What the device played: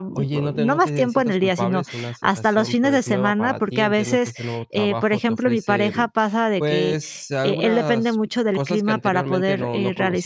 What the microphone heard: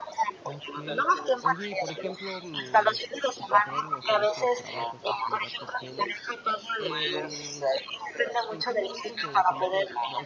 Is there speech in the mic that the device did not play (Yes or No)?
Yes